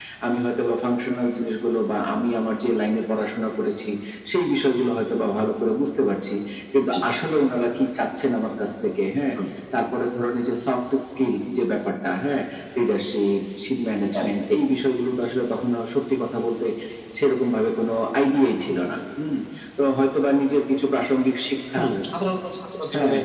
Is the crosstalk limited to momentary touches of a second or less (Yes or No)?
Yes